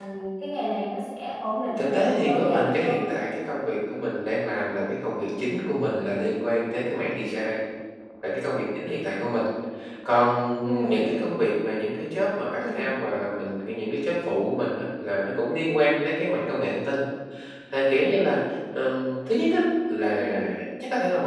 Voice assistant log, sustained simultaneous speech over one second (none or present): present